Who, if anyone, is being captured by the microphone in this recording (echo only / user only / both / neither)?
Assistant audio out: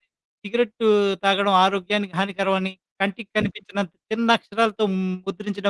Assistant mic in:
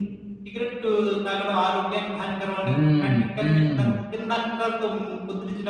both